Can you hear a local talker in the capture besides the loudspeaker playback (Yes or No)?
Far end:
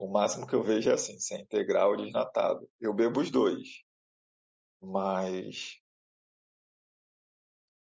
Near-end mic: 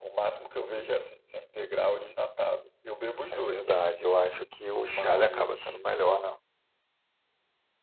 Yes